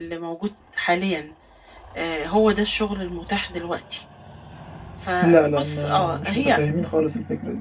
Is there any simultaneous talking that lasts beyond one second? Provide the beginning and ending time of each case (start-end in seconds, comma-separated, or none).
5.2-6.6